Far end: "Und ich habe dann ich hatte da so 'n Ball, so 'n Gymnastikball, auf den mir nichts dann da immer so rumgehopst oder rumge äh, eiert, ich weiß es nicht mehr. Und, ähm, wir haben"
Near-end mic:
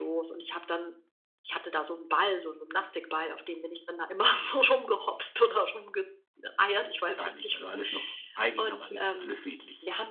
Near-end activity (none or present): present